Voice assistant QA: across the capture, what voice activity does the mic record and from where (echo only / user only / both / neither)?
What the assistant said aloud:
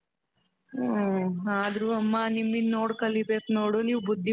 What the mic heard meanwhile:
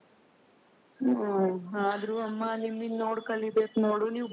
echo only